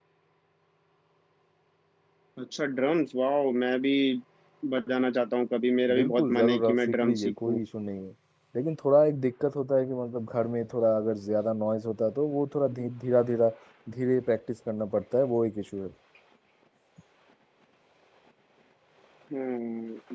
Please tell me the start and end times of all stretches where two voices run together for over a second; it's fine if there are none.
5.9-7.6

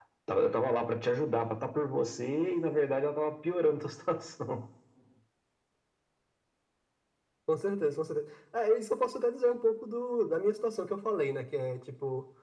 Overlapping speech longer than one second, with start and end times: none

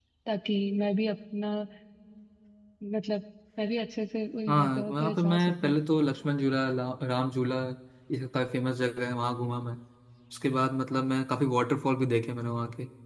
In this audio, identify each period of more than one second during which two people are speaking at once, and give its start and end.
4.5-5.7

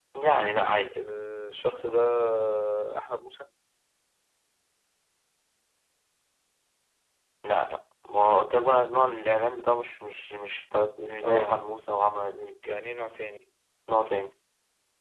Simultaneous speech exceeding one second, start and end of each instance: none

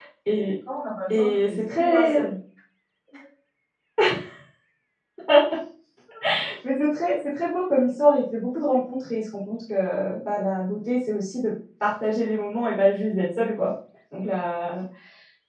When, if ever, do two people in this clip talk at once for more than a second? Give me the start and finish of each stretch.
1.1-2.3

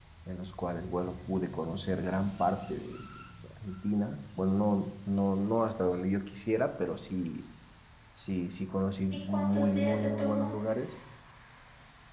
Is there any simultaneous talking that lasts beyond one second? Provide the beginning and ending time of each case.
9.3-10.5

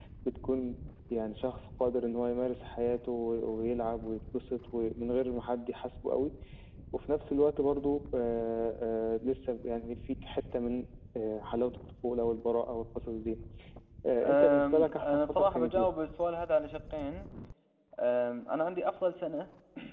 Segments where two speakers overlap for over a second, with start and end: 14.2-15.8

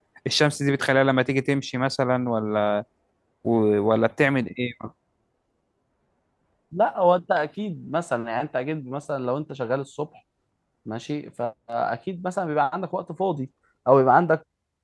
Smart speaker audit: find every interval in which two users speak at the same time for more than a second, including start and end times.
none

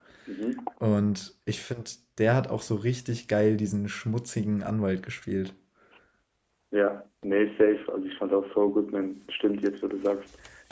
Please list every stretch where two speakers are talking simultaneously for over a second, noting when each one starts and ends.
none

